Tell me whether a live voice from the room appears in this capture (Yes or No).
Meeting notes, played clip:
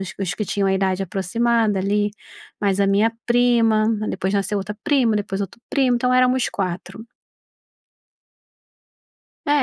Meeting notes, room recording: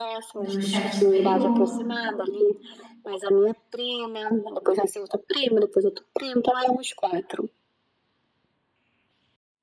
Yes